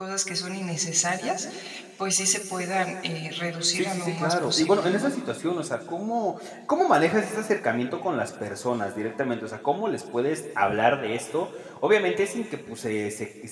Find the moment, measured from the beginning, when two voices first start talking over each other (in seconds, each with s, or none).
3.7 s